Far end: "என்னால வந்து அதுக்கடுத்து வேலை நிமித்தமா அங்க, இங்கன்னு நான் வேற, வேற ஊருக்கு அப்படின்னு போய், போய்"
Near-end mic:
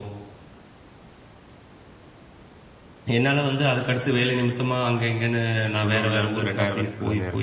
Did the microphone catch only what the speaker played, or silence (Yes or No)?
No